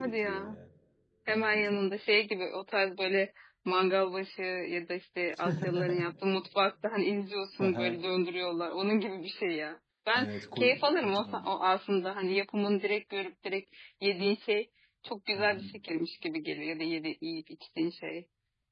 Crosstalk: present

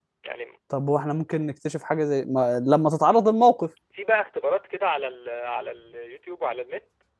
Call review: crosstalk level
none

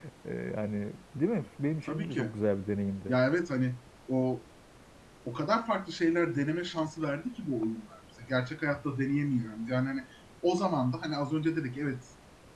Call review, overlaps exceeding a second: none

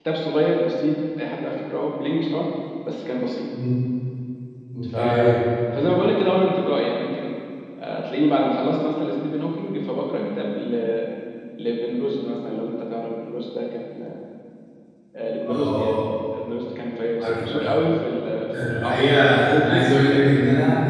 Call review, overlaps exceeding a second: present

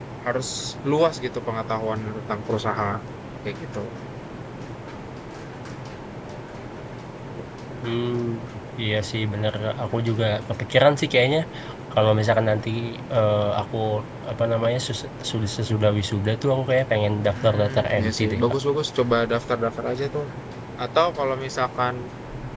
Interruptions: present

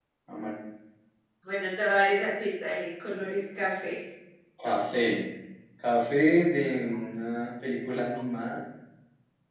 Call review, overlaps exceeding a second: none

